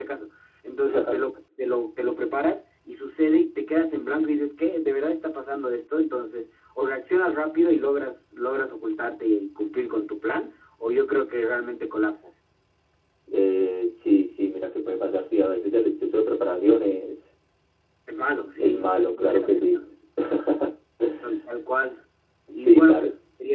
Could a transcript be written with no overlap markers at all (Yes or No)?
No